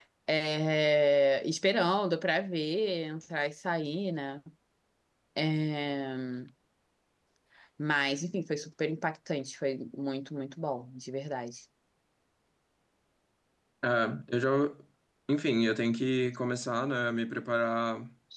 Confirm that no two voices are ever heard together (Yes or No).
Yes